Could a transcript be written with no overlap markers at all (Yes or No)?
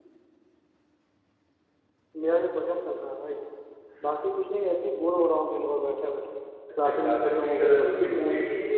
No